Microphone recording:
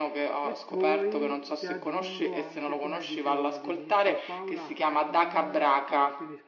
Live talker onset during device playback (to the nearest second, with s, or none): 0 s